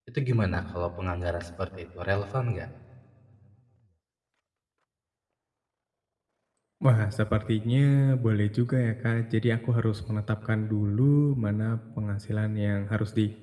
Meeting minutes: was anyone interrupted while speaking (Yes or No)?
No